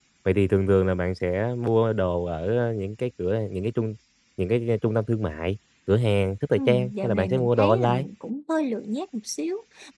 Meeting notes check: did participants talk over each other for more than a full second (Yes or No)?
Yes